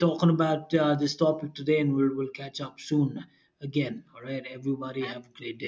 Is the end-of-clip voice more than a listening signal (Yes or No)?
Yes